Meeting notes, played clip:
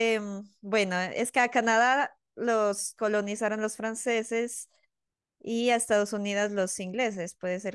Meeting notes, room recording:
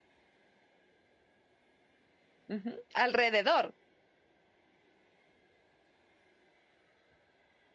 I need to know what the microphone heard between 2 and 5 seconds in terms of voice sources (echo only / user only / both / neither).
user only